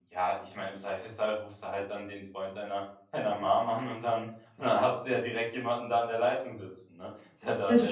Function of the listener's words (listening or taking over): taking over